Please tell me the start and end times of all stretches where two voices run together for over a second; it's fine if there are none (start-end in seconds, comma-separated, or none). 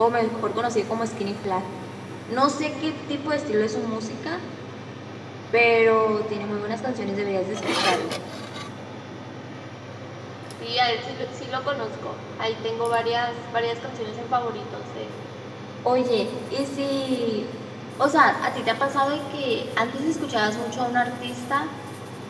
none